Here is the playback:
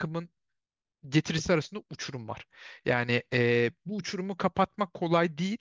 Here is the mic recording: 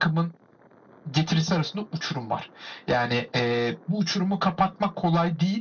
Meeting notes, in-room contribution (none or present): none